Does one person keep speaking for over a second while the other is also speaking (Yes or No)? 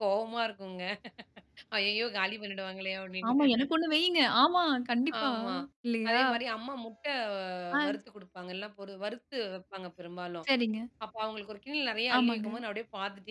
No